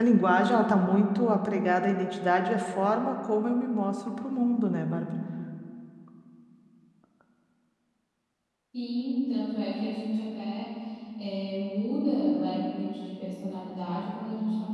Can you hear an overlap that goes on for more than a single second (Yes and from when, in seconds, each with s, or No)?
No